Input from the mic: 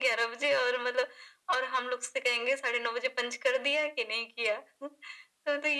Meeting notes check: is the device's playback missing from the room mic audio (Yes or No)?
No